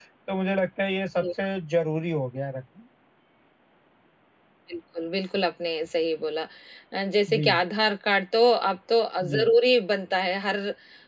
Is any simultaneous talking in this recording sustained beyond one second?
No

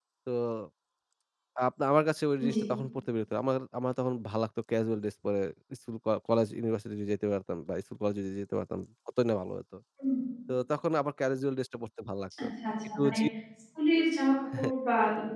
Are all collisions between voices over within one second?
Yes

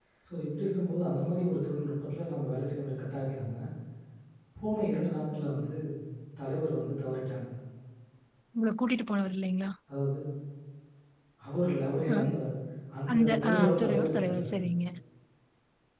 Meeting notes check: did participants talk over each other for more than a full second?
Yes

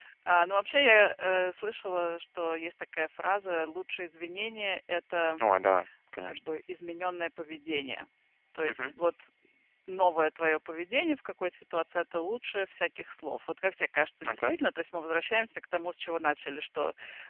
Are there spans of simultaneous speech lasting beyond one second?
No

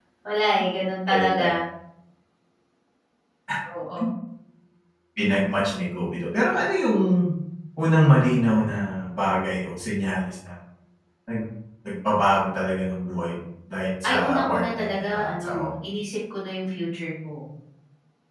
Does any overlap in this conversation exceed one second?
Yes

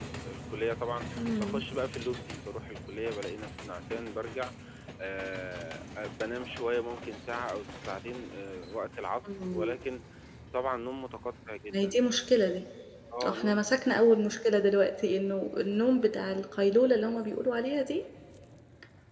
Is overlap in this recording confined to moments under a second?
Yes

